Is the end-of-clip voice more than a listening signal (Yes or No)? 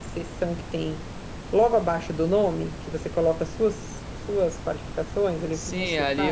Yes